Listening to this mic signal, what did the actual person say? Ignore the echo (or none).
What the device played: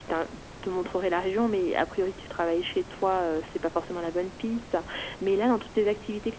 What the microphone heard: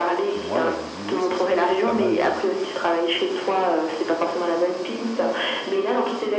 que moi et je me dis: «Oui, ça serait peut-être pas mal de